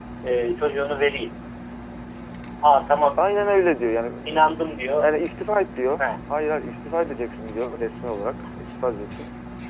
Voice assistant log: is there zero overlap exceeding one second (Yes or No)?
Yes